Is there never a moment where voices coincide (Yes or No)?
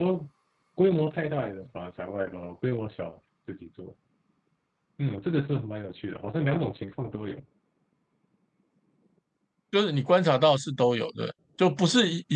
Yes